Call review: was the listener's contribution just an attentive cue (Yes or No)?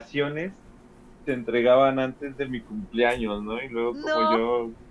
Yes